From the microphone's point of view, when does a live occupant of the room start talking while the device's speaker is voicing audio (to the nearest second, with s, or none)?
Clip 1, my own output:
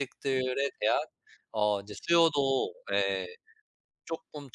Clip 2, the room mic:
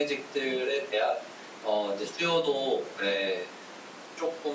none